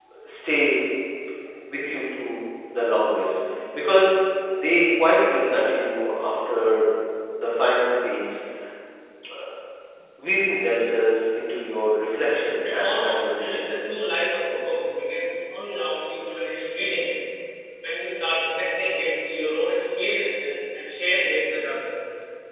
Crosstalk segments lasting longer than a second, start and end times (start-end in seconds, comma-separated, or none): 12.6-13.9